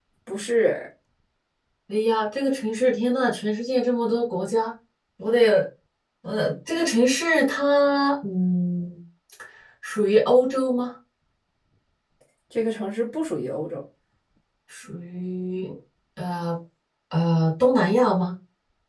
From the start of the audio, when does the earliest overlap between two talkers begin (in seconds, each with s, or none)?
none